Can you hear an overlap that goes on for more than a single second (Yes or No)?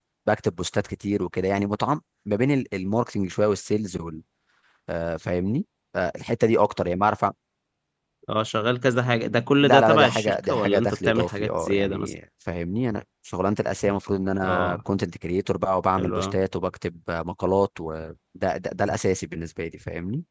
Yes